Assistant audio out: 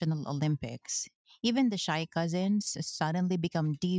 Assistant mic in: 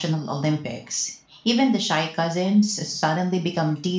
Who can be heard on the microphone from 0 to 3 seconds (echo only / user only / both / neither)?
echo only